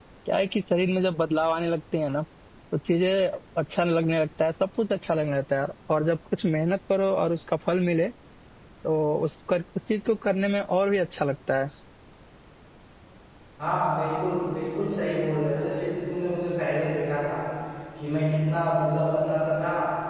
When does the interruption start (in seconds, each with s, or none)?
none